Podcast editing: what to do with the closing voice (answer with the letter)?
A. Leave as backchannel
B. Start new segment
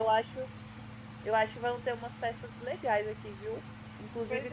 A